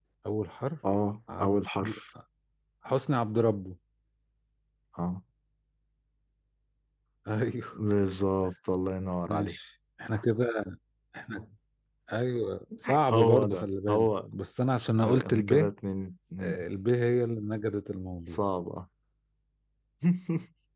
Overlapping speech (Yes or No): Yes